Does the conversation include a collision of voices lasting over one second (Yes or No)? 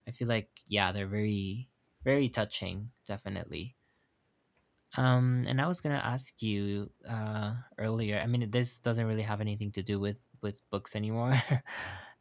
No